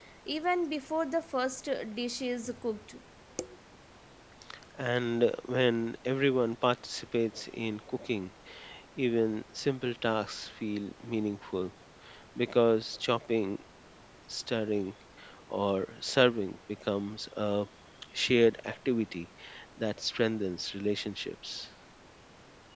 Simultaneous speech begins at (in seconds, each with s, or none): none